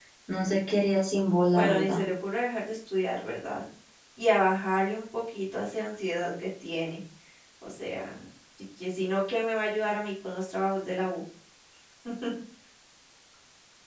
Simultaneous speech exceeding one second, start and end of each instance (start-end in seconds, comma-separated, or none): none